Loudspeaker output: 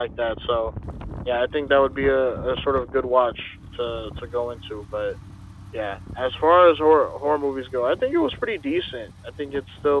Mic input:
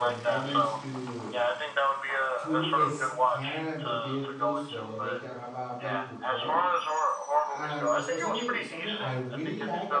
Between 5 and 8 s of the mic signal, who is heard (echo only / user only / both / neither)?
both